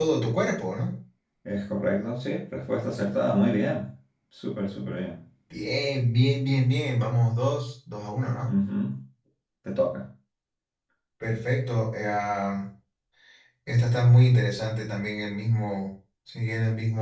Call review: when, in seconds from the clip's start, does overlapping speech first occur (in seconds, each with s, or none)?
none